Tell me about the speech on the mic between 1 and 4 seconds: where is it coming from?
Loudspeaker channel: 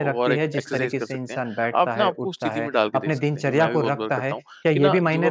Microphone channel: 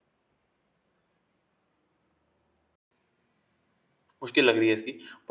neither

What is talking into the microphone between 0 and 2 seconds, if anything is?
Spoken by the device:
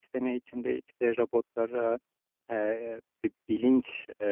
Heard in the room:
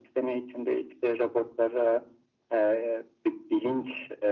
echo only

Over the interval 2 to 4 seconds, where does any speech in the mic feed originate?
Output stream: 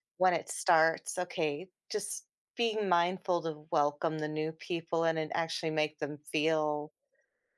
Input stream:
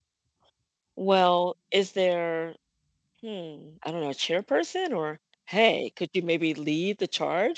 user only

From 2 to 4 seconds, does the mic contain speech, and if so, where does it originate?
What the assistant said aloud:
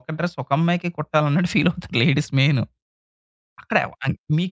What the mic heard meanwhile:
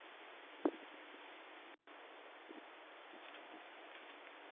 neither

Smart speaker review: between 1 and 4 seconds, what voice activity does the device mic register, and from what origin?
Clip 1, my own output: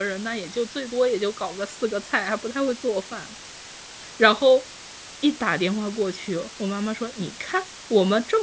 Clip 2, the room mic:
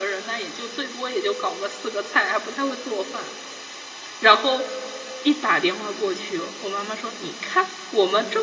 echo only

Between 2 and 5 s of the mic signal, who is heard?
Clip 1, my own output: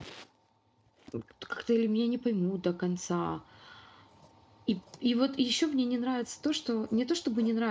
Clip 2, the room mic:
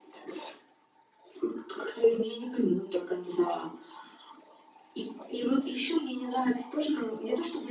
echo only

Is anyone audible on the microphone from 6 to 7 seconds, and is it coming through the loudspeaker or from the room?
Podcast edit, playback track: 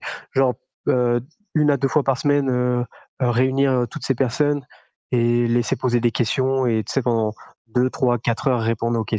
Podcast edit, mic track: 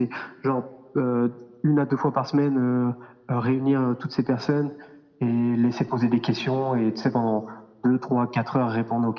echo only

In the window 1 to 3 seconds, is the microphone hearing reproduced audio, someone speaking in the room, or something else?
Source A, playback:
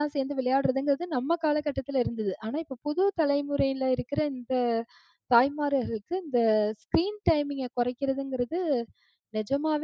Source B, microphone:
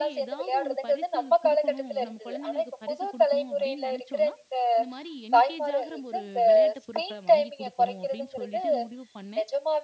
both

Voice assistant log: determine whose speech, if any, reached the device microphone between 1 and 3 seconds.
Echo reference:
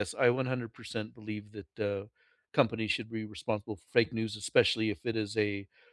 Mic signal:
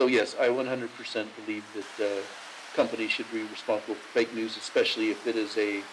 echo only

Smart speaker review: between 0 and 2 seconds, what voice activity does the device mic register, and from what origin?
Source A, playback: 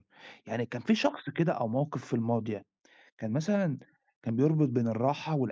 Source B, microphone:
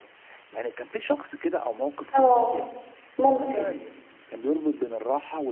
echo only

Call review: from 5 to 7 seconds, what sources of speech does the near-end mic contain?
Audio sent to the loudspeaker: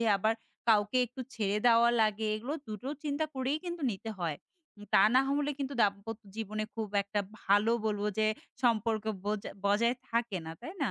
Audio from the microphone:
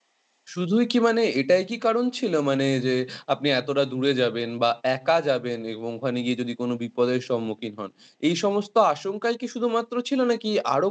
user only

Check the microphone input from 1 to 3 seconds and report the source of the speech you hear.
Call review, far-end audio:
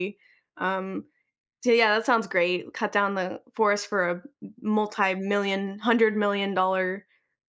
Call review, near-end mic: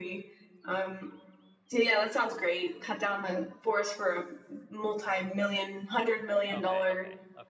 echo only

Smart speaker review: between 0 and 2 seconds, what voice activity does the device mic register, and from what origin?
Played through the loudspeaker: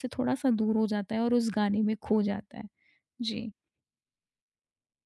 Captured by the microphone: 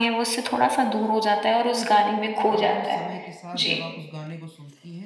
echo only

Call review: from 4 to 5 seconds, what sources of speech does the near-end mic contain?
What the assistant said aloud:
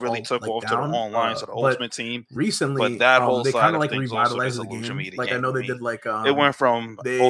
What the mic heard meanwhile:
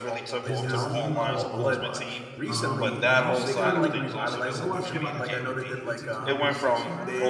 both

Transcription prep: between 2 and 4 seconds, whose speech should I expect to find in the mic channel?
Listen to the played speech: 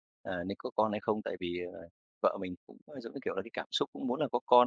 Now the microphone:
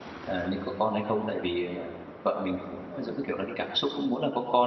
echo only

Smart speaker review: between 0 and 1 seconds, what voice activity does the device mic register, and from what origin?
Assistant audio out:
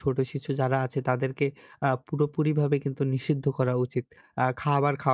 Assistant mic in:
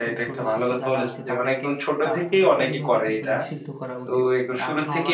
both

